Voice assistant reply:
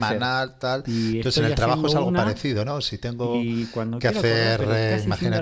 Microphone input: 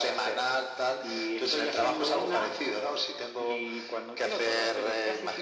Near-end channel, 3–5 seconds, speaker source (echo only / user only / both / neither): echo only